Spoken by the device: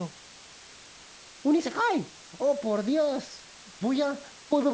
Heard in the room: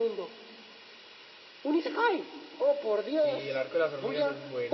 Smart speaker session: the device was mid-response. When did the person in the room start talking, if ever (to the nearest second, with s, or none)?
3 s